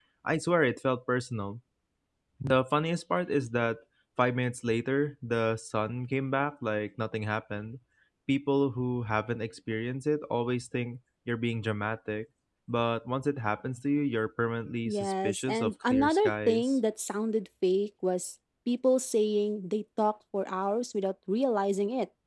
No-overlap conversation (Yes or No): No